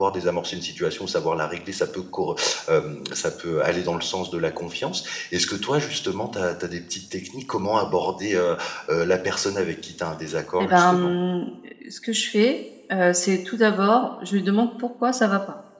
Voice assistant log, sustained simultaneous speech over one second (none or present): none